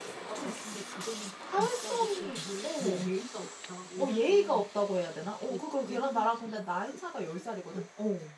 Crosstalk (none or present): present